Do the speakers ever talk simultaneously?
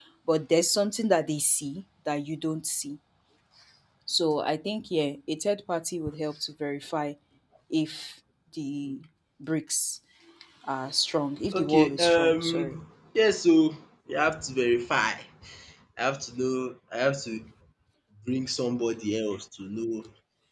Yes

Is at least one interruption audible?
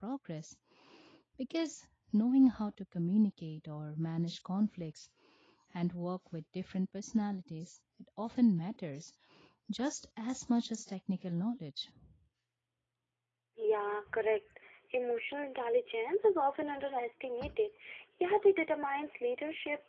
No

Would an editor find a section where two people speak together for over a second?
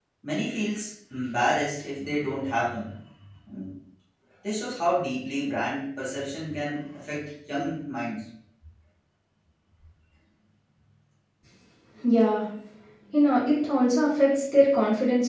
No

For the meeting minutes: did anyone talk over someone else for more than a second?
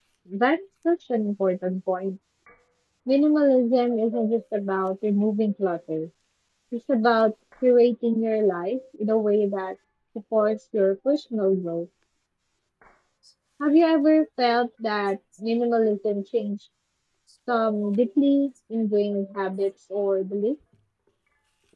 No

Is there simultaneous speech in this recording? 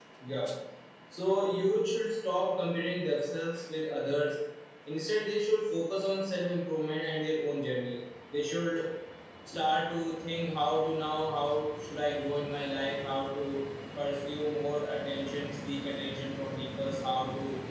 No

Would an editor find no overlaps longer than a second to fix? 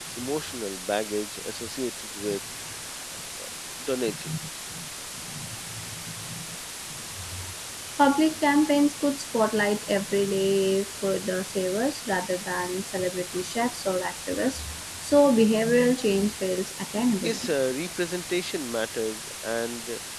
Yes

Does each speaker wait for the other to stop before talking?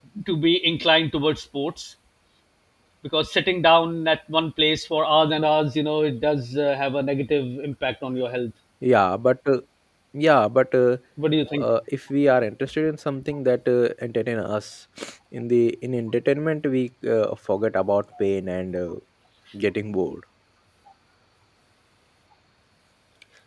Yes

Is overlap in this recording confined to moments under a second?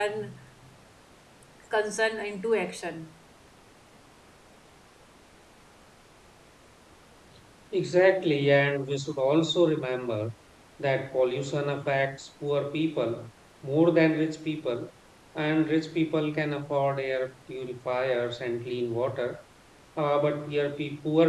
Yes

